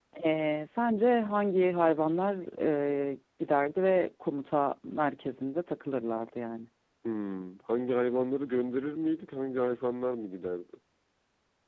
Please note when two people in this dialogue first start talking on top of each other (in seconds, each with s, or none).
none